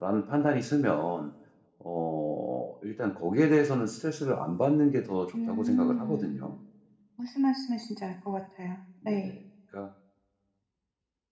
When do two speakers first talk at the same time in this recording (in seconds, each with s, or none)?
5.3 s